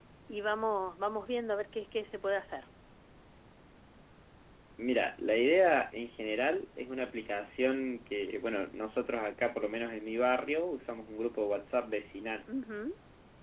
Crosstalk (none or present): none